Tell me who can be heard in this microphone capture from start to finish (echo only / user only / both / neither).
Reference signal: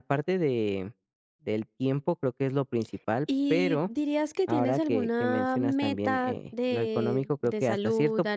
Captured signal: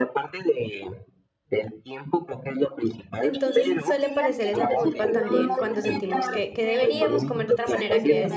both